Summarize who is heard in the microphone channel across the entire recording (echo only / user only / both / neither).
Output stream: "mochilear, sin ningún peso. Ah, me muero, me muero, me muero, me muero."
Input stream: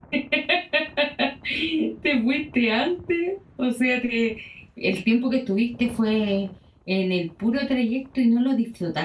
user only